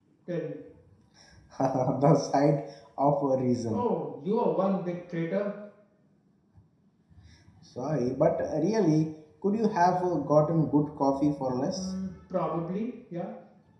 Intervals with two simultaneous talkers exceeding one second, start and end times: none

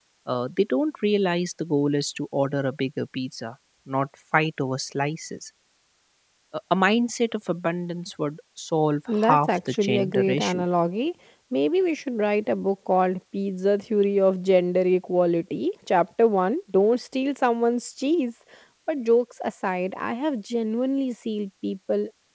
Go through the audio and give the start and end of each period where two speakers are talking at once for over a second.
9.1-10.6

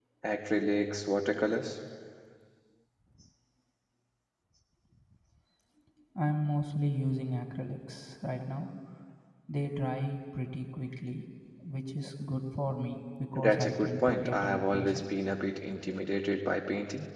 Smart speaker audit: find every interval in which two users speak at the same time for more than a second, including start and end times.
13.3-15.0

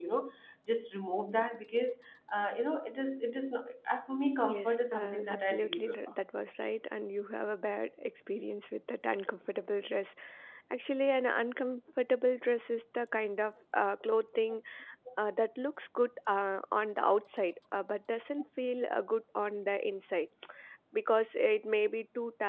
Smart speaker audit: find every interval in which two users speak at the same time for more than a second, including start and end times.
4.4-6.1

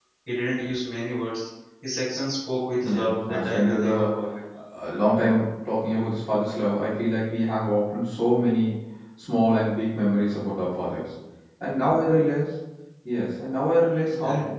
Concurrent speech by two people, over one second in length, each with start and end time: 2.8-4.2

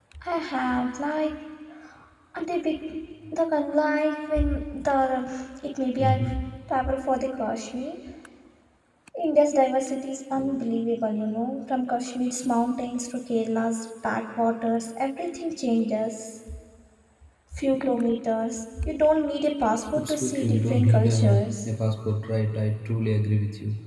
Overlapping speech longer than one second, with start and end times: 19.9-21.6

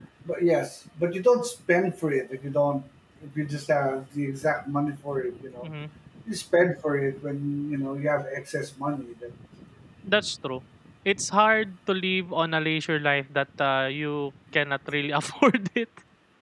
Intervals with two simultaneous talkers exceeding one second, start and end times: none

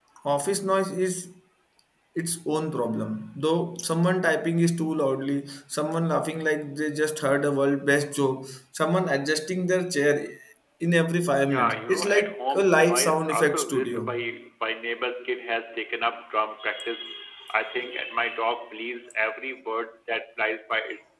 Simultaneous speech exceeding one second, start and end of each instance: 11.4-14.2

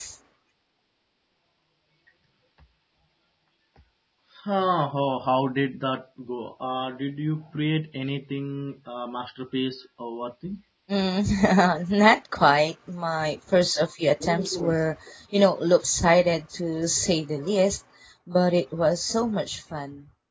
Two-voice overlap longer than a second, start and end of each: none

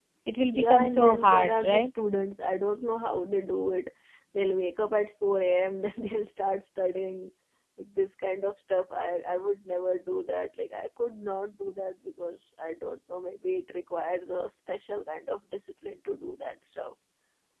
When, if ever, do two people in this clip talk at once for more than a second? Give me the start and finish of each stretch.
0.5-1.9

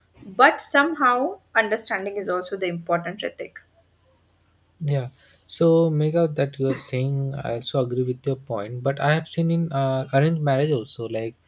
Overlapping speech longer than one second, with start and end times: none

